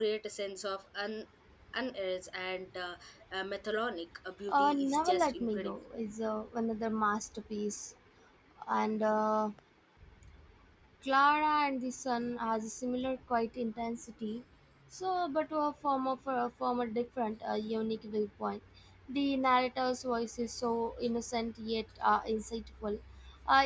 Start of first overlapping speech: 4.5 s

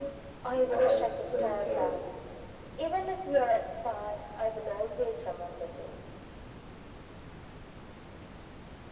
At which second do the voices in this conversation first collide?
0.5 s

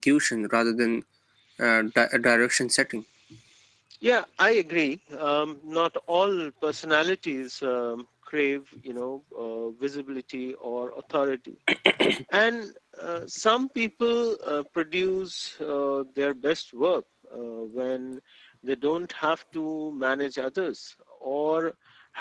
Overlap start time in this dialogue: none

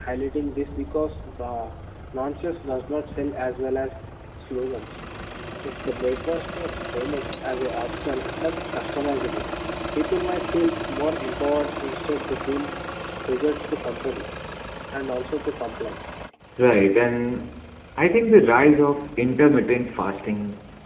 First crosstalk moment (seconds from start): none

